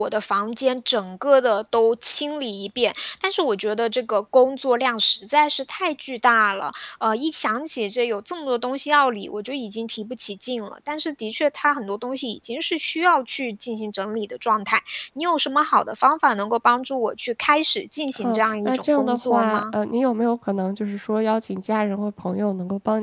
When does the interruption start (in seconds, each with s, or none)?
18.1 s